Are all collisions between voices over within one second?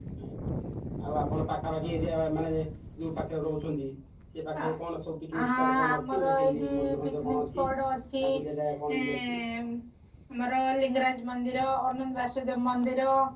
No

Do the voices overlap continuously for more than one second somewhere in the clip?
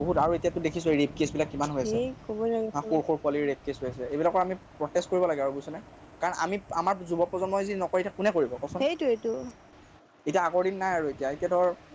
No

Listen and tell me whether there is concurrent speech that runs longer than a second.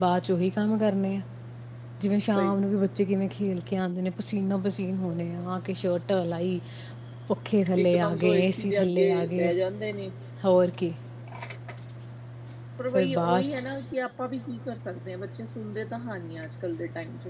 Yes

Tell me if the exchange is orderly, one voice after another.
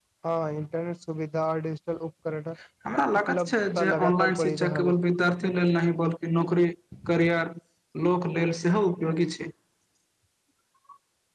No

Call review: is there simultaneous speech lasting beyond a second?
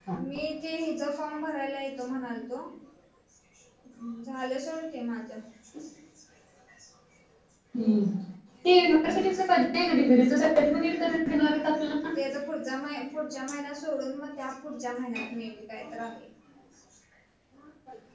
No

